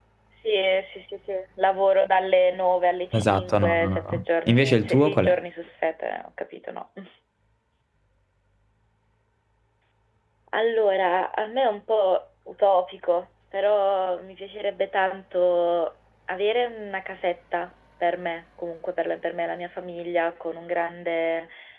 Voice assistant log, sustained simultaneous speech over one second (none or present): present